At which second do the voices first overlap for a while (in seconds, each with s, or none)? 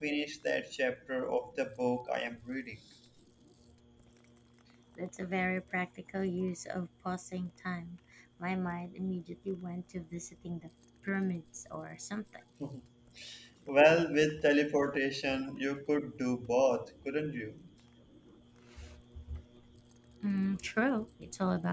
none